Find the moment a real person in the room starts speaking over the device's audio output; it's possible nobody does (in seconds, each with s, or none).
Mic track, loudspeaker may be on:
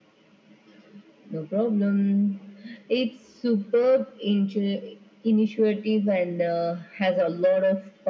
none